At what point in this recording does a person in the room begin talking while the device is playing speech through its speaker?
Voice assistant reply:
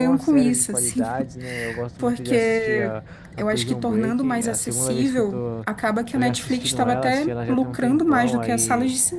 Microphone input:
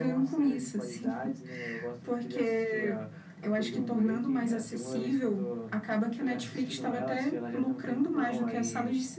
none

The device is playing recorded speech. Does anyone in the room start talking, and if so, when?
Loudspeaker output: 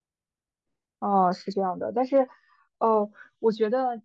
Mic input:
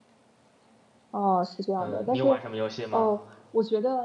1.7 s

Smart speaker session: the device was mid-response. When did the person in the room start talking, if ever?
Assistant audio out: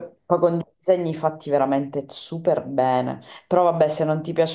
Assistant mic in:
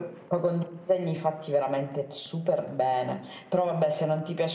none

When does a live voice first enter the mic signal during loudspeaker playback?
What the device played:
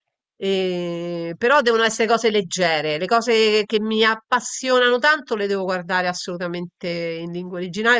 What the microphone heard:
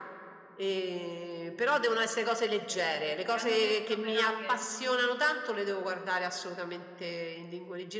2.6 s

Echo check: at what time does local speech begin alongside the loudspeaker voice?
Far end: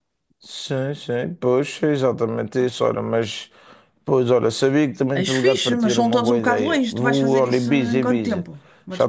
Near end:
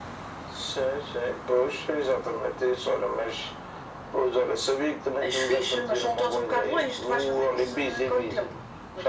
none

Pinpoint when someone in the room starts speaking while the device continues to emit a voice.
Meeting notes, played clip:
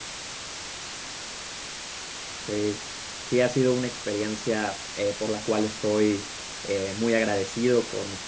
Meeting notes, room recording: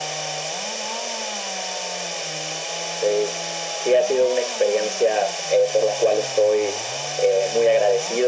none

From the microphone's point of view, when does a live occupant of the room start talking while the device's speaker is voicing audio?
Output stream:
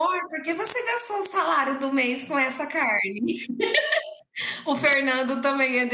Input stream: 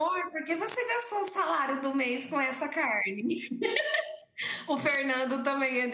none

